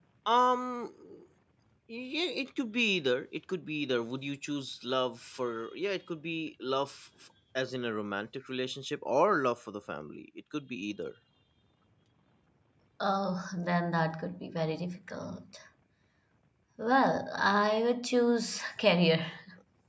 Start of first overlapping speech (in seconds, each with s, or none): none